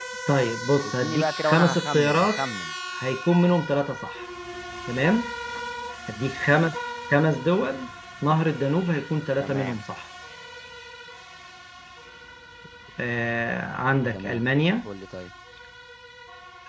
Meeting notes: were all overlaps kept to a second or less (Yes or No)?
No